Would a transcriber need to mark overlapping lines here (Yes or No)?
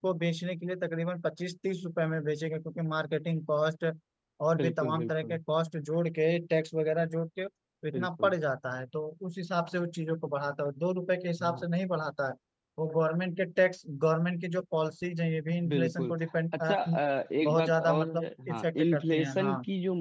Yes